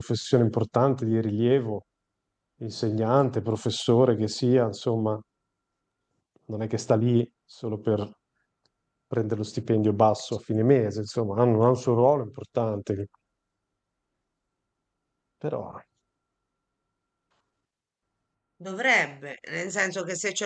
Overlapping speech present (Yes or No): No